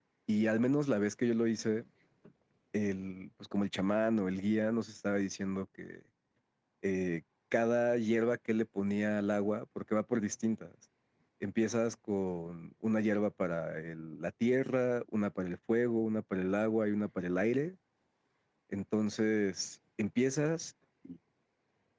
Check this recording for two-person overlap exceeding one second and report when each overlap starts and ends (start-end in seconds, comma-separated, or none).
none